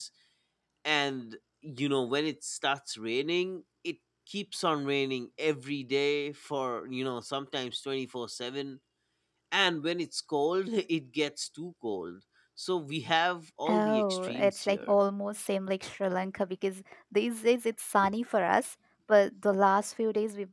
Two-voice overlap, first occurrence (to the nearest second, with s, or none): 14 s